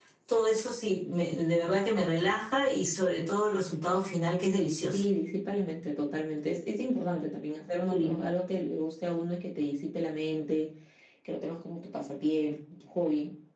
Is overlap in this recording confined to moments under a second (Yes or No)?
Yes